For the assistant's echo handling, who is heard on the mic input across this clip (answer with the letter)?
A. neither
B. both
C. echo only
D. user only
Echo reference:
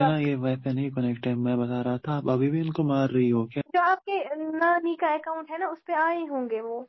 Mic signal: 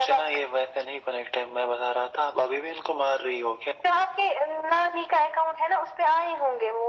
C